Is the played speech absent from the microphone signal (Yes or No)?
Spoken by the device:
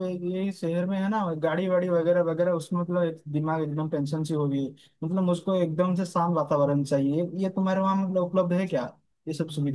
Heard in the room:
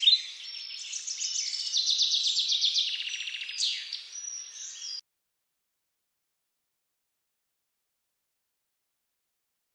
Yes